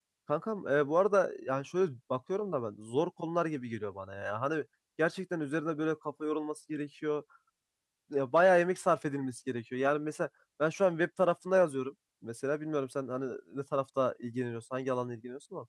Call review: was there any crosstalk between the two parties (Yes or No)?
No